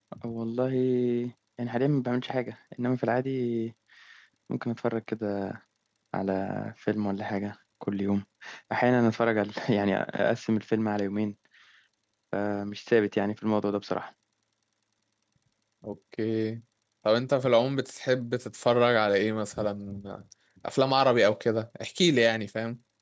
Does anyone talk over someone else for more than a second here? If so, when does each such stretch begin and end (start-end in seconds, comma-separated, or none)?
none